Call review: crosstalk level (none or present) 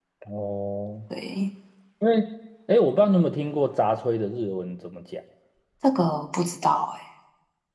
none